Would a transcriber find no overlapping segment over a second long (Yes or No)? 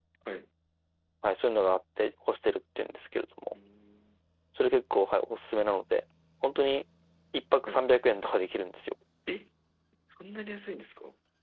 Yes